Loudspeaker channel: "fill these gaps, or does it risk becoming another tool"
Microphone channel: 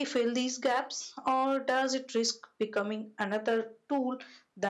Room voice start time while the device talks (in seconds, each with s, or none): none